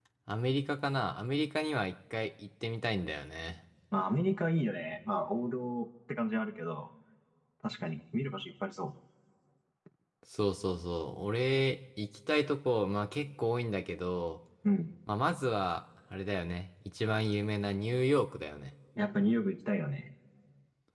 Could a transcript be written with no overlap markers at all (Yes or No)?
Yes